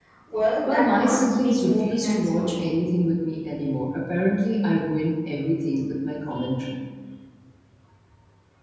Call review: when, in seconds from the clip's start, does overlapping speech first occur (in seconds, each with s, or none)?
0.7 s